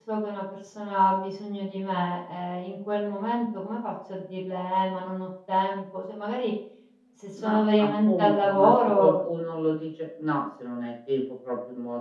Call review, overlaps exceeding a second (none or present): present